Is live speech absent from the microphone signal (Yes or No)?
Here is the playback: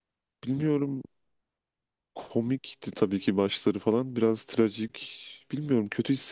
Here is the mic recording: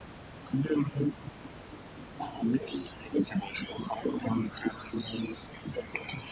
Yes